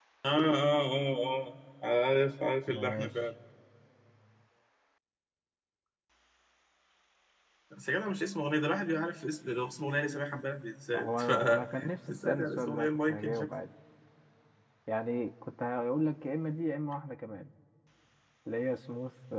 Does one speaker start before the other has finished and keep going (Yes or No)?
Yes